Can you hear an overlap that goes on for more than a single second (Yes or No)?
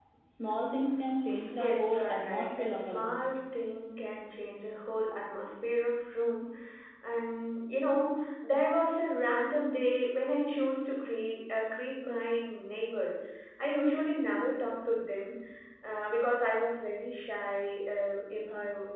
Yes